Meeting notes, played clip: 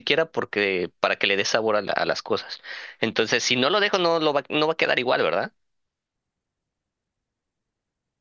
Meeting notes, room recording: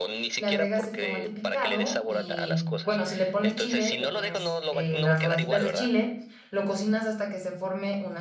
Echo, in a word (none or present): present